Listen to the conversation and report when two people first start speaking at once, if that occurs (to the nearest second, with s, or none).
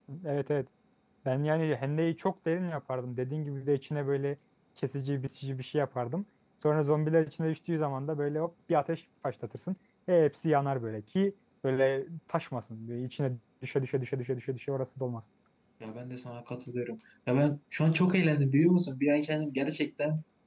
none